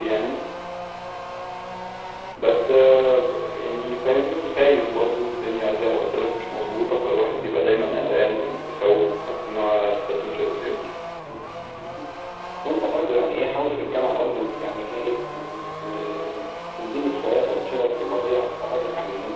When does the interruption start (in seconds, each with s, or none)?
none